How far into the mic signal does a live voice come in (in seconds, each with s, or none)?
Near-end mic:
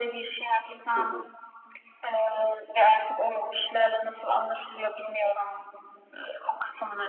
0.9 s